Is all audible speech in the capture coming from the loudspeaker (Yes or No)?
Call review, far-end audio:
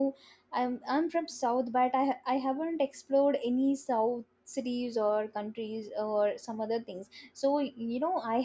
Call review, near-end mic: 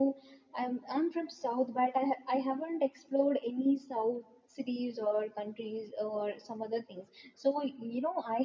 Yes